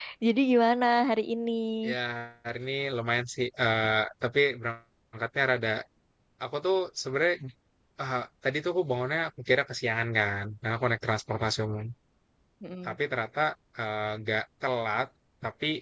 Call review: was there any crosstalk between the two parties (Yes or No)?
No